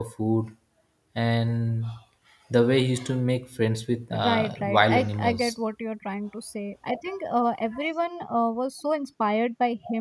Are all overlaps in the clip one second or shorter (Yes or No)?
No